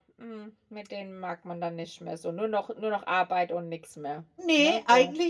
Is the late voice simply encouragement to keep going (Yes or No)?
No